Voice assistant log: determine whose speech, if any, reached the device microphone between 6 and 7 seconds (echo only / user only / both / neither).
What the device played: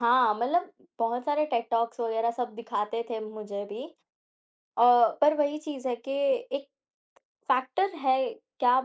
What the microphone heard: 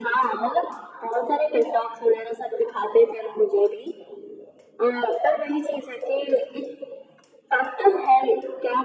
echo only